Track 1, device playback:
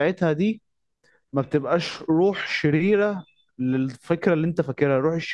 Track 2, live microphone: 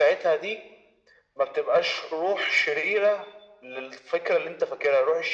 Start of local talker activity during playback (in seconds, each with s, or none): none